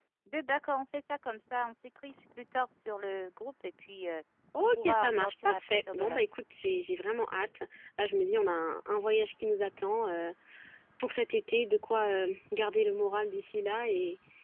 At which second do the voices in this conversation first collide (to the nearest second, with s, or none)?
5 s